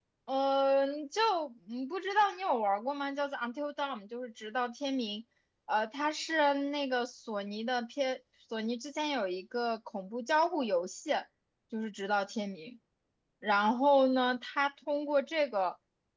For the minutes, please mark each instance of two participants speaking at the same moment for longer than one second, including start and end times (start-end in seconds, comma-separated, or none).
none